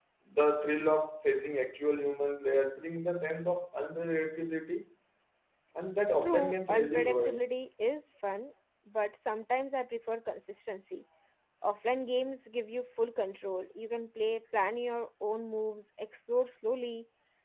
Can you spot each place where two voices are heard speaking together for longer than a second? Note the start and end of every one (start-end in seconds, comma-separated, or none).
6.2-7.5